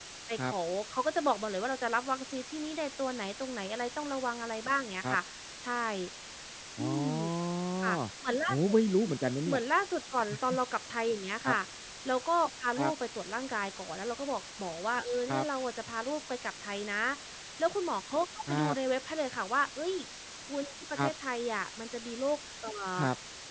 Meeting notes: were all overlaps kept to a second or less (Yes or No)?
Yes